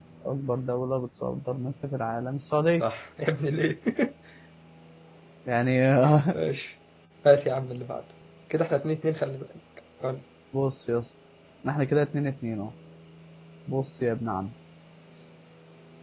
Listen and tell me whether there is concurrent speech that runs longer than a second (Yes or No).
No